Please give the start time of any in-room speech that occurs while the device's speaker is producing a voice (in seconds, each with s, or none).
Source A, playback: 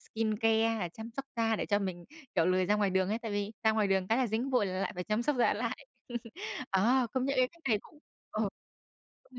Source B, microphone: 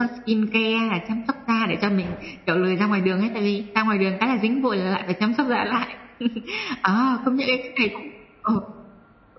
none